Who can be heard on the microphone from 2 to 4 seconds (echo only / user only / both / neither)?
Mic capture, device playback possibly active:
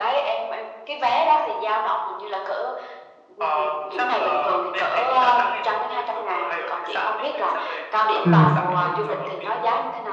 echo only